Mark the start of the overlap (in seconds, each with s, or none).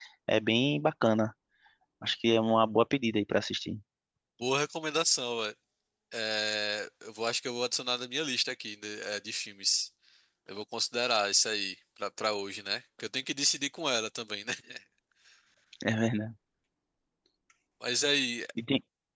none